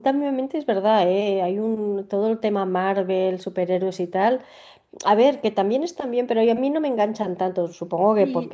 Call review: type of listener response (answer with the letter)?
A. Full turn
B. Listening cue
A